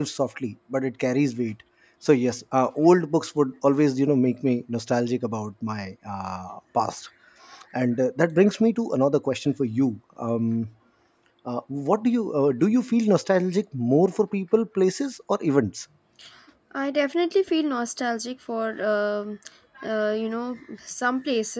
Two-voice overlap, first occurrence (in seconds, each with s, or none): none